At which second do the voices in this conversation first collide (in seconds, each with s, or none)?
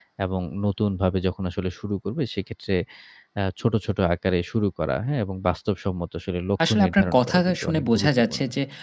6.6 s